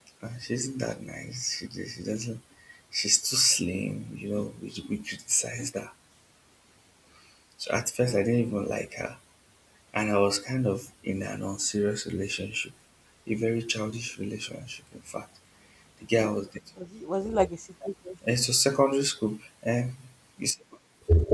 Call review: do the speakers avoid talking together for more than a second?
Yes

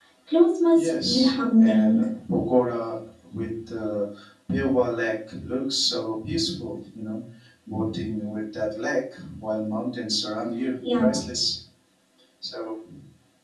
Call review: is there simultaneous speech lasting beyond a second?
Yes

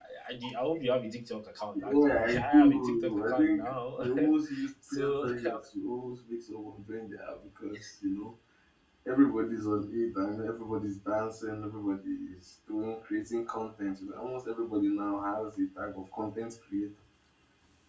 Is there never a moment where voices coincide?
No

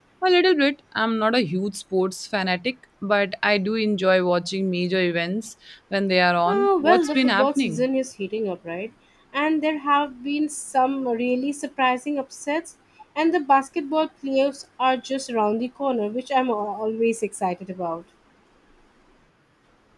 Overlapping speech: Yes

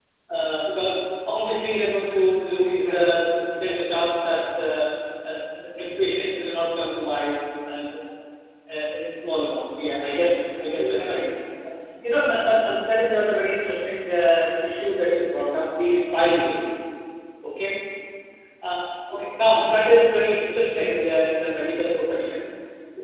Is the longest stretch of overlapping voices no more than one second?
No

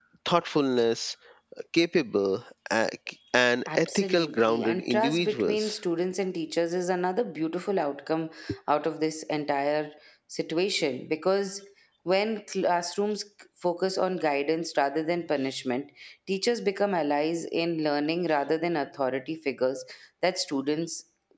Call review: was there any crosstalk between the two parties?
Yes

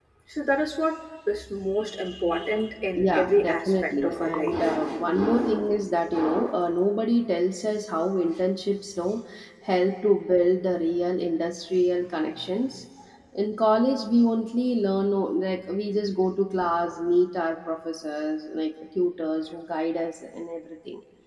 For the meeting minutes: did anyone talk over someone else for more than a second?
Yes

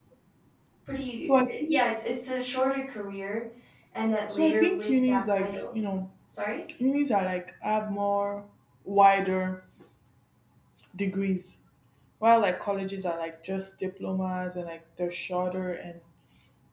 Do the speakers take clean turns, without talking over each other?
No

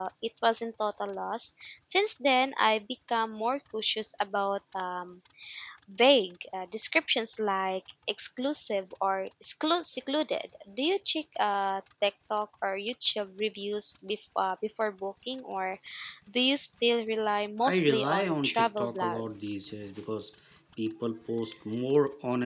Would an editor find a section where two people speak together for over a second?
Yes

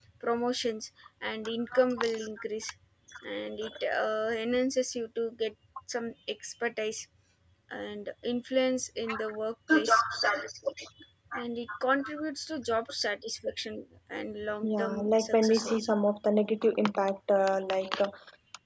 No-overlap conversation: No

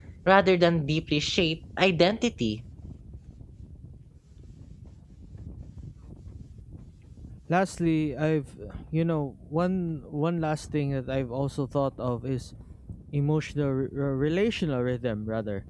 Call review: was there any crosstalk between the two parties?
No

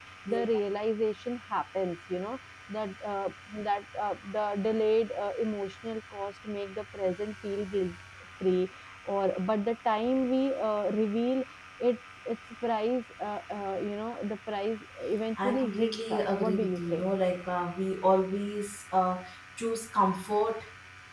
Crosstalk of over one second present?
Yes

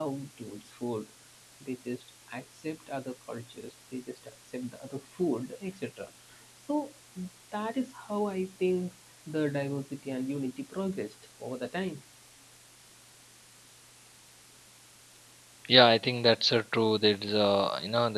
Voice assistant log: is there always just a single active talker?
Yes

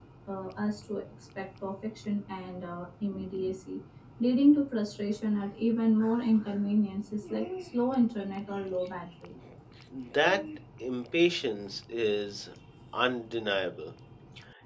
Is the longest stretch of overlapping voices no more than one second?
Yes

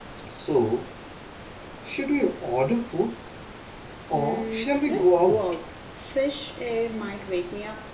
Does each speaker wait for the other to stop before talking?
No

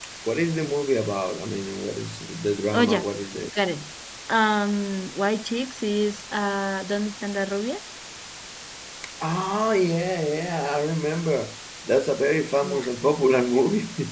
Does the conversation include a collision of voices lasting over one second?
No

